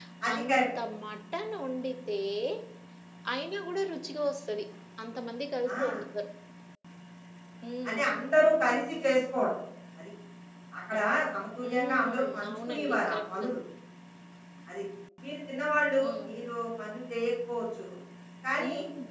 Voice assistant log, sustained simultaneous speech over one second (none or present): present